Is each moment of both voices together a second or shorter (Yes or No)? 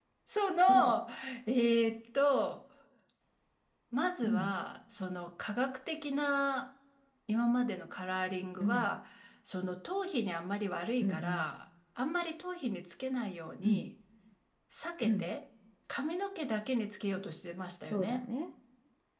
Yes